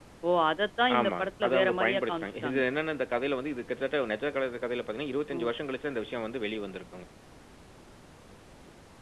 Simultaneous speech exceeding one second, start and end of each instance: 1.0-2.6

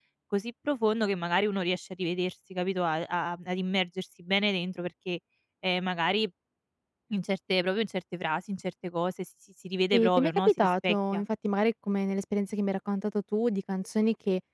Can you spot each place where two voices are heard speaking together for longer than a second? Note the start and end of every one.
9.9-11.2

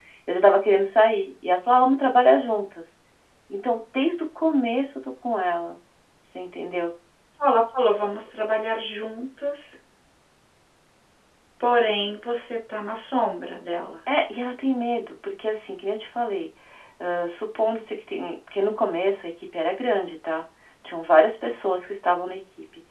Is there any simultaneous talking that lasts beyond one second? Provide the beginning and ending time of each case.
none

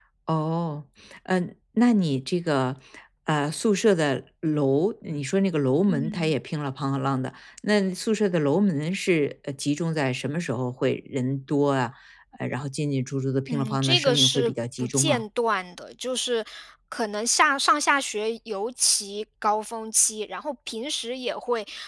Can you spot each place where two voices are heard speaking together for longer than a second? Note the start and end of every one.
13.5-15.2

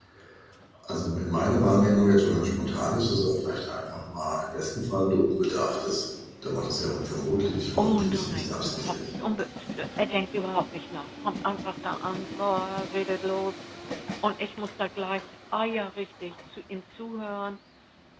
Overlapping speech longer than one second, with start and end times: 7.8-9.1

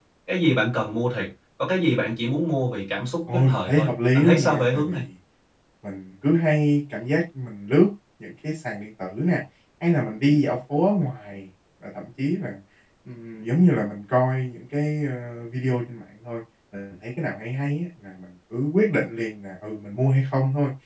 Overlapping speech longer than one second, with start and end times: 3.3-5.0

